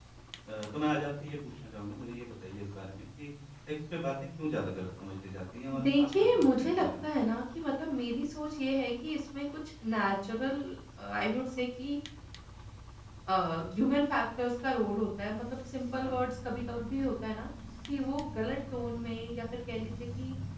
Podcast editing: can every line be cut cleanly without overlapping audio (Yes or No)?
No